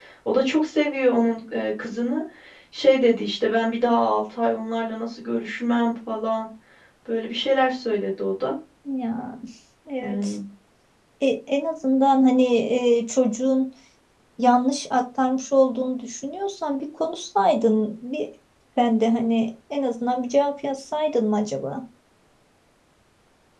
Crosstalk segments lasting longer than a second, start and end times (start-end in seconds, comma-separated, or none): none